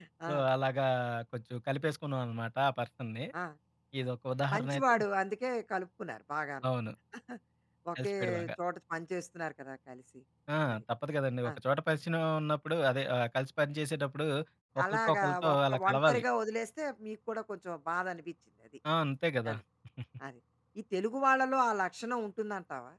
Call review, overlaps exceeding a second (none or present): present